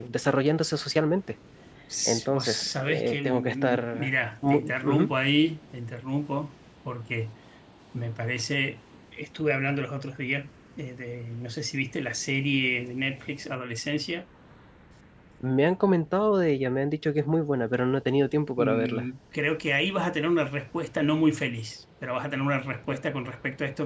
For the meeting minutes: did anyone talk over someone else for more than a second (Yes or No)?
Yes